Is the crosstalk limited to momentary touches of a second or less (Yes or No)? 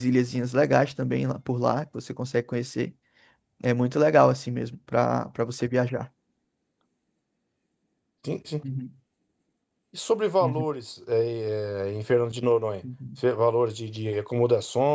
Yes